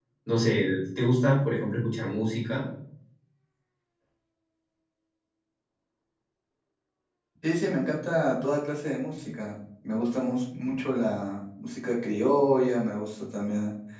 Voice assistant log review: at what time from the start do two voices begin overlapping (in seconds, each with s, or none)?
none